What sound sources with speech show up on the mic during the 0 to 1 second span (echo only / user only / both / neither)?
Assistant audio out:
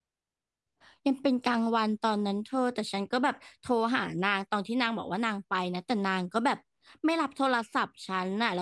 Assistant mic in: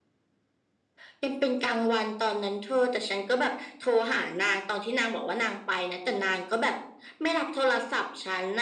neither